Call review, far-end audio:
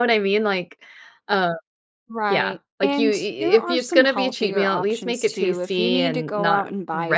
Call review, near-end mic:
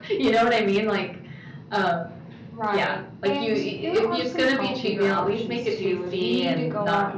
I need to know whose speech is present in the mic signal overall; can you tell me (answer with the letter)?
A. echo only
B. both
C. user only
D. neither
A